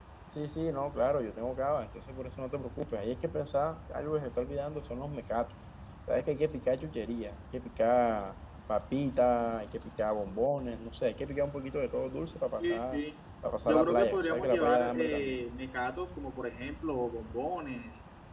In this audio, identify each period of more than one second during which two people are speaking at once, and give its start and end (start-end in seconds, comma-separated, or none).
13.7-15.4